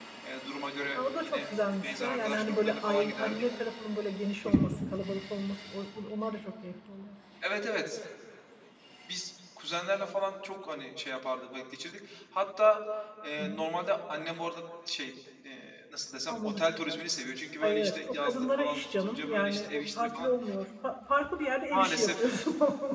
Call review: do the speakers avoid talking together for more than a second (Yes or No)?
No